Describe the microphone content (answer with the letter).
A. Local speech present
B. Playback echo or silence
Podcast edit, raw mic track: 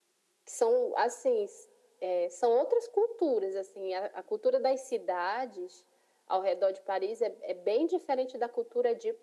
B